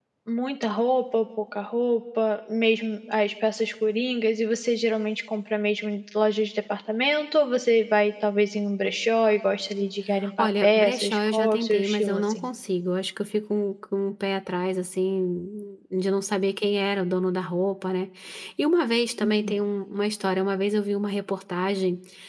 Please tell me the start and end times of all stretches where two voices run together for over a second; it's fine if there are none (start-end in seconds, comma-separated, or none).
10.4-12.4